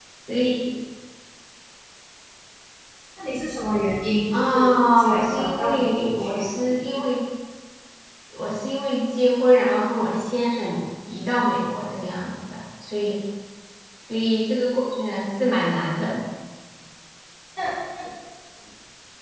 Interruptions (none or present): present